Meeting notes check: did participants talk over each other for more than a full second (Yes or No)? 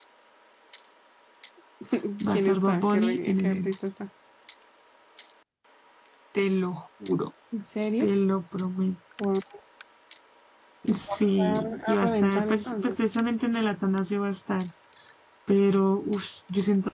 Yes